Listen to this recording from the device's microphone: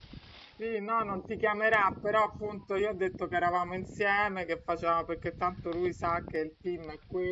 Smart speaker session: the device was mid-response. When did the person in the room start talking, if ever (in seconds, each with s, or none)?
0.5 s